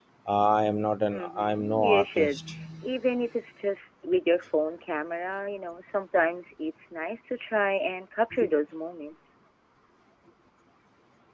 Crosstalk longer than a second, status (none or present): present